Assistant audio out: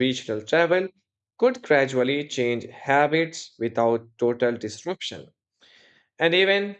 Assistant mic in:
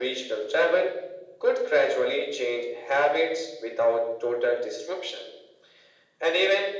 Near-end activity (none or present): none